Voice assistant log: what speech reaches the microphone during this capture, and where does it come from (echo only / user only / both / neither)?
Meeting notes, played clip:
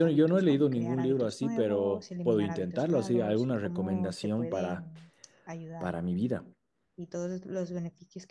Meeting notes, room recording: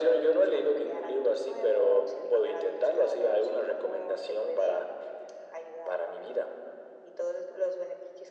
echo only